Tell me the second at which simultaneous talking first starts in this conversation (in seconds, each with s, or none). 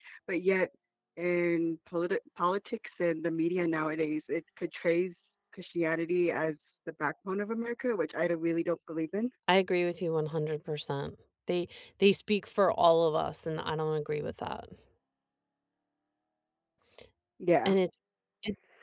none